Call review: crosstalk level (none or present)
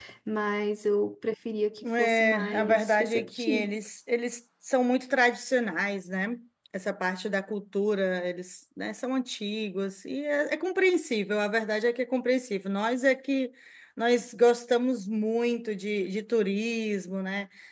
present